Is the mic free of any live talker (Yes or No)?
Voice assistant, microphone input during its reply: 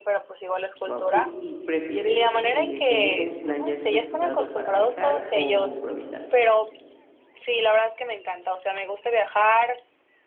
No